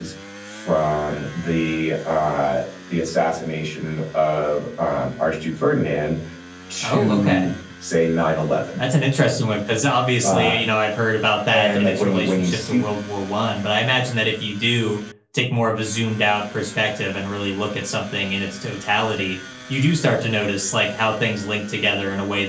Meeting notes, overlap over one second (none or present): present